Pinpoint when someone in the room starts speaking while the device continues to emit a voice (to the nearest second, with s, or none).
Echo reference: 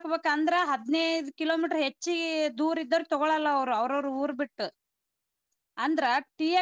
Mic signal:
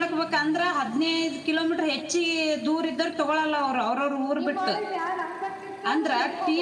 4 s